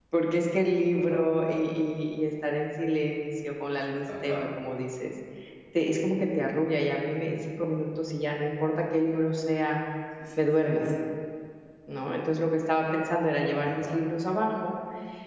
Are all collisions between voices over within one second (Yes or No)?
Yes